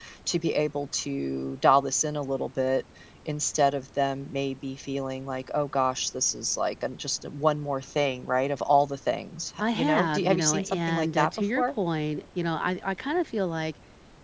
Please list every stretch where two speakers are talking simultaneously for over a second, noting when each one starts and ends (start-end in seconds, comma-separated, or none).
9.6-11.7